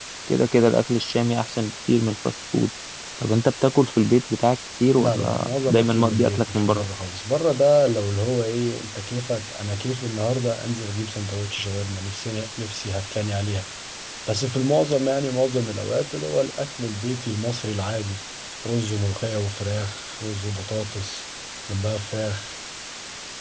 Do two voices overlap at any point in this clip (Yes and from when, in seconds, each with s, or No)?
Yes, from 4.9 s